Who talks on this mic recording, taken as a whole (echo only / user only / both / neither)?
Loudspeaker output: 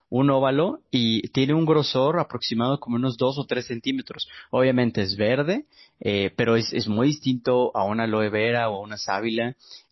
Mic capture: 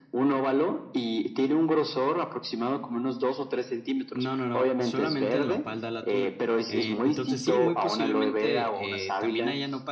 both